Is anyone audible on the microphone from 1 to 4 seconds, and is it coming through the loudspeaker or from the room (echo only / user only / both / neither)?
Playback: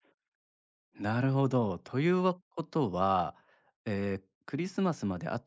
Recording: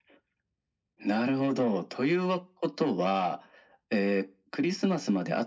echo only